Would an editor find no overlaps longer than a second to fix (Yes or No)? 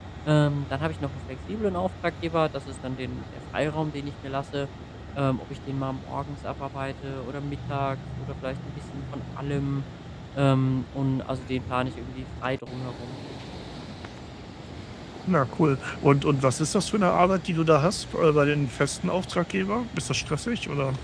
Yes